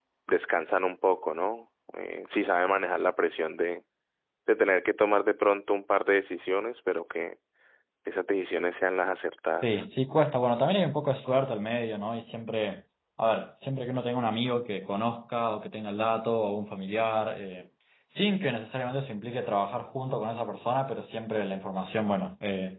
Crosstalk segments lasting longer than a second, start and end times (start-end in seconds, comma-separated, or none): none